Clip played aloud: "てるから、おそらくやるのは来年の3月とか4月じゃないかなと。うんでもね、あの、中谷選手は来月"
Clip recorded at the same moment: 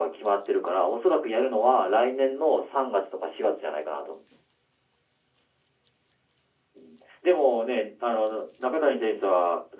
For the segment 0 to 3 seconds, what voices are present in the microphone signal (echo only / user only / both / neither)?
echo only